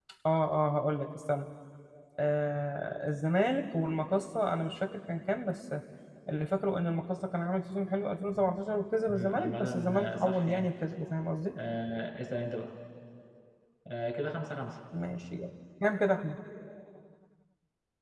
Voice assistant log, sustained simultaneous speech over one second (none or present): present